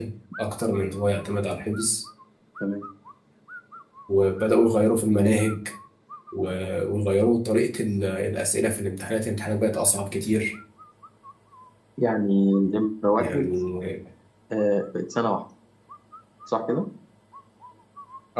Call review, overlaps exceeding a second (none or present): none